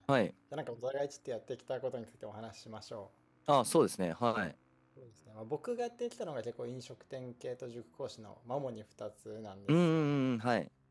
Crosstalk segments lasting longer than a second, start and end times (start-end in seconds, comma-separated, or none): none